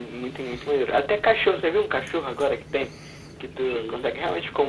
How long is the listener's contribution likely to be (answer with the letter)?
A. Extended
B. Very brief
B